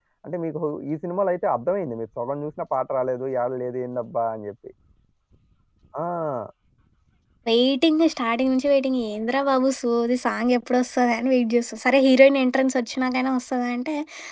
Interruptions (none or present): none